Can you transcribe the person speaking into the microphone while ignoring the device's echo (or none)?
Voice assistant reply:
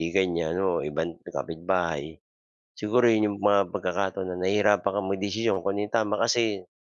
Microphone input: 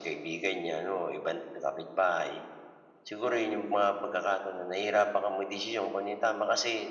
none